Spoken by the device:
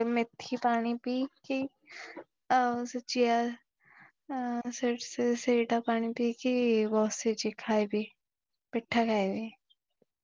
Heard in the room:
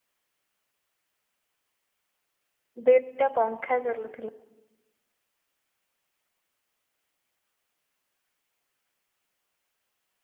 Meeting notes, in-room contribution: present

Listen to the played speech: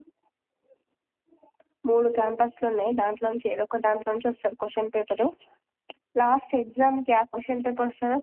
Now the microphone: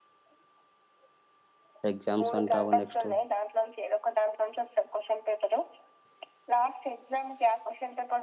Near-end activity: present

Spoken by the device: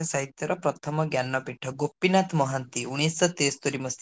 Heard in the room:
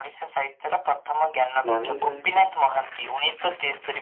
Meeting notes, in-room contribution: present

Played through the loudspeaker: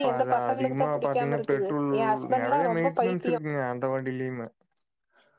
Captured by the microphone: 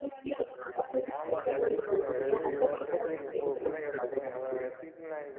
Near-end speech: present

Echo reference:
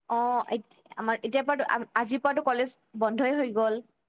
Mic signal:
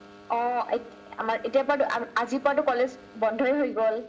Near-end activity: none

